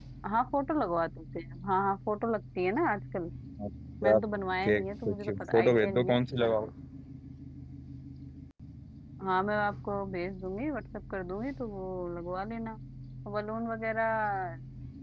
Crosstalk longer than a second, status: present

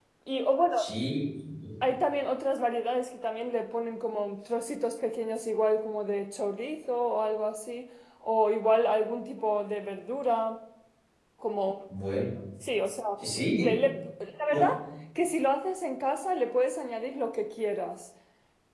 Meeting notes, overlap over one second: none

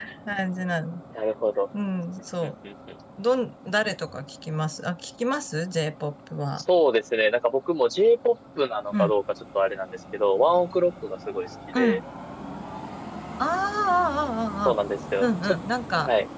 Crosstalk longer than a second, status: none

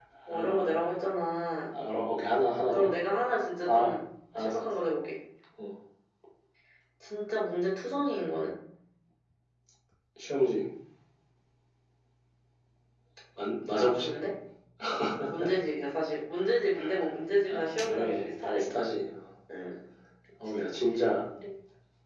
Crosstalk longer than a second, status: present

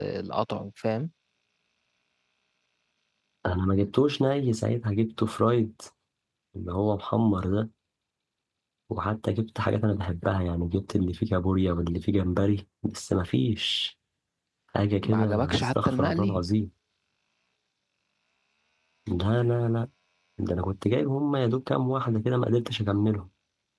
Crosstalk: present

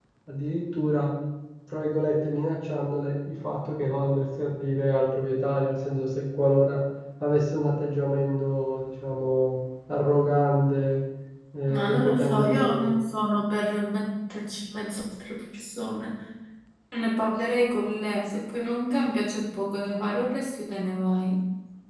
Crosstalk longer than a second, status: present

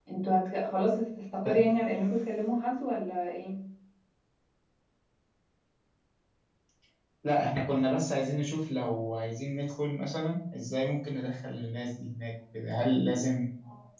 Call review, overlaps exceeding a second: none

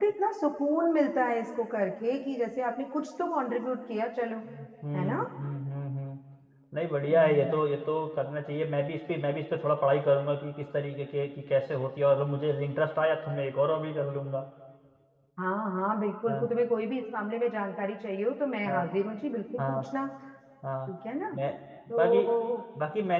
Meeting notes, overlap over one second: none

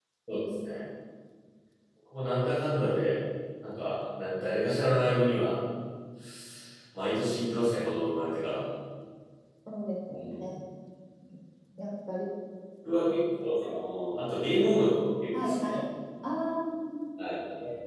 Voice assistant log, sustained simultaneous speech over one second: none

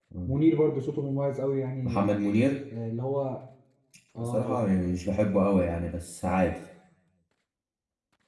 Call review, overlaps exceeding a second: none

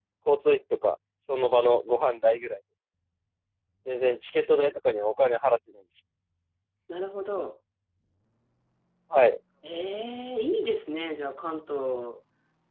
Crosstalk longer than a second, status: none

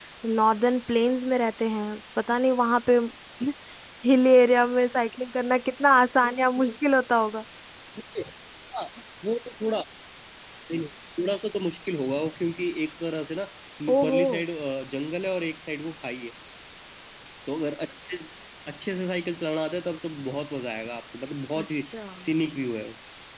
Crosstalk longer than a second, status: none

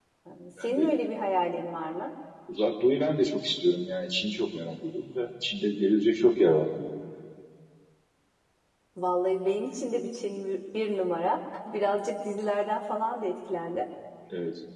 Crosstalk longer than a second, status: none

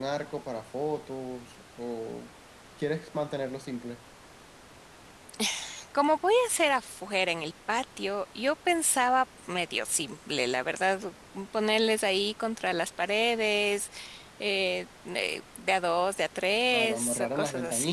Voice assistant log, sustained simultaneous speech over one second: present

